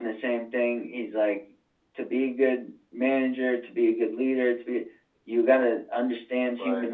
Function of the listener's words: listening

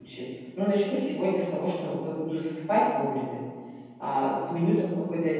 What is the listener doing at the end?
listening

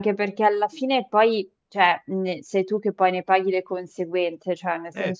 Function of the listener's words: listening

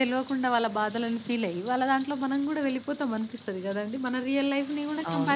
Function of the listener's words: taking over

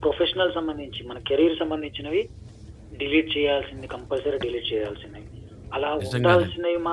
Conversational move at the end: listening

